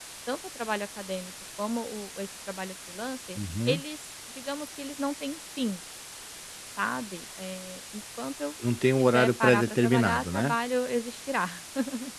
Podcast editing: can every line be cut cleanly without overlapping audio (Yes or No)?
No